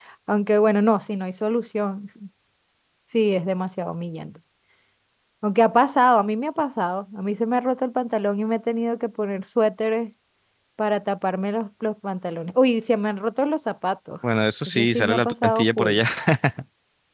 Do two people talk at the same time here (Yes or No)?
Yes